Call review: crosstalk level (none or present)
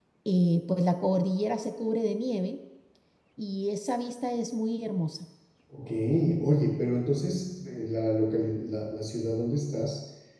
none